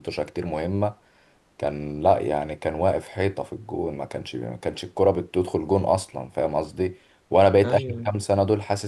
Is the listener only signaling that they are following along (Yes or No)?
Yes